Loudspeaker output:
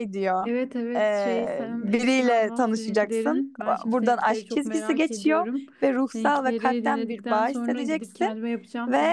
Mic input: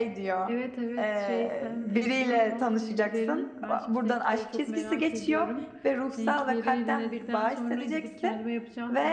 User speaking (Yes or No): No